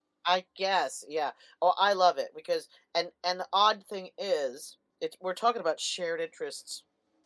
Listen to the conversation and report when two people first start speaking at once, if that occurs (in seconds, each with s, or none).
none